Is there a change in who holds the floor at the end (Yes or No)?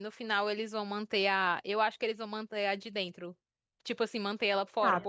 No